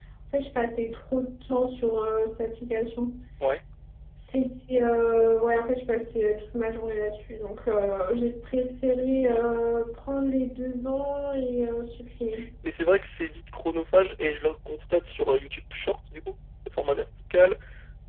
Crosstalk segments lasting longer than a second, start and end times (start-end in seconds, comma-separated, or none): none